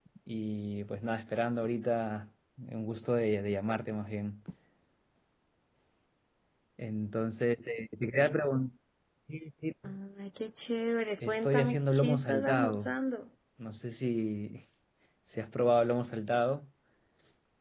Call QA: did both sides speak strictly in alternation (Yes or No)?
No